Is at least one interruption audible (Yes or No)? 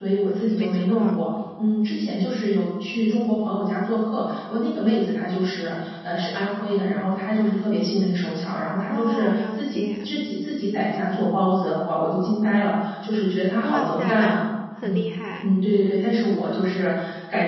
Yes